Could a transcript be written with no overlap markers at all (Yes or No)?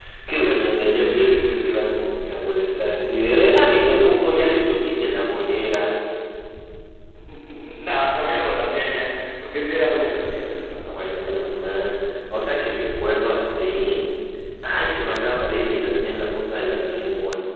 Yes